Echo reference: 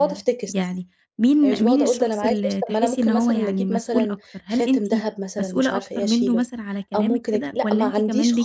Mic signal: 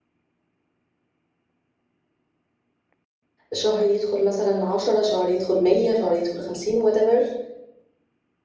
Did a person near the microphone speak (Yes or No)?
Yes